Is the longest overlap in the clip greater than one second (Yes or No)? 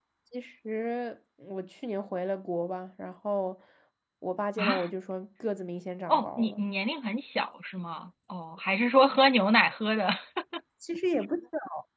No